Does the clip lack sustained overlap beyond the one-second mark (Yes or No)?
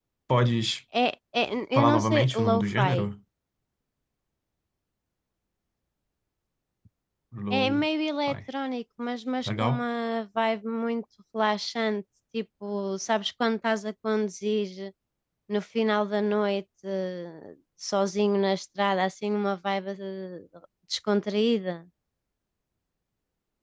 No